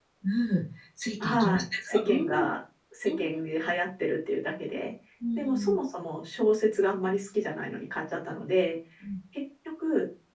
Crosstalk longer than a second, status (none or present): present